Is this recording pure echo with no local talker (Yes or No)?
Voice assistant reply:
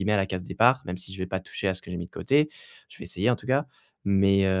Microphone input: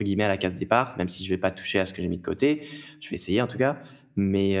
Yes